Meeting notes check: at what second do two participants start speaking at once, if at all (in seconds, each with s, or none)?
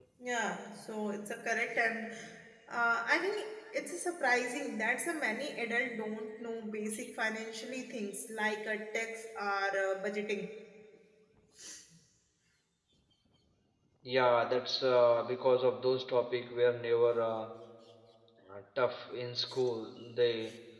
none